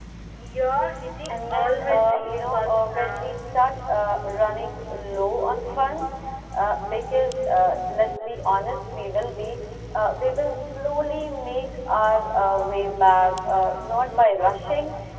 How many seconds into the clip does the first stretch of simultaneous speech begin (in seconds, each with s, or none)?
1.3 s